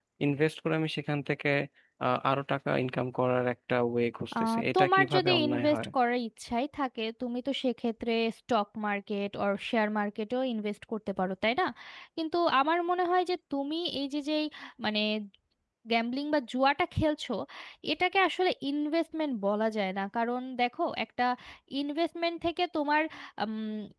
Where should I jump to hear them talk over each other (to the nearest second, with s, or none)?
4 s